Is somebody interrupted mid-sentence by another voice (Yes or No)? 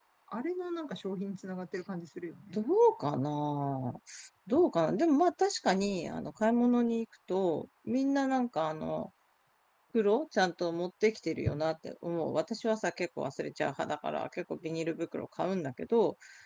No